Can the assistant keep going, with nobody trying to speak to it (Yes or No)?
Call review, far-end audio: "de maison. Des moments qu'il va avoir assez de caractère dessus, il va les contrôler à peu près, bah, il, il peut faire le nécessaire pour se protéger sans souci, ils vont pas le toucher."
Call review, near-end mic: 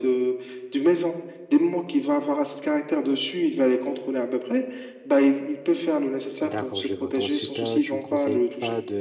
No